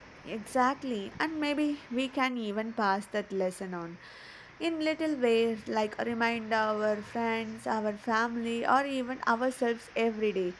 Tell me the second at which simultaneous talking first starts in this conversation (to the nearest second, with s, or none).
none